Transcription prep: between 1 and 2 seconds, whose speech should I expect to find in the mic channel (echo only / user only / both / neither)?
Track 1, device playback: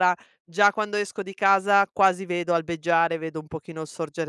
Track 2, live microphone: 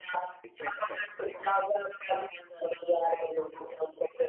both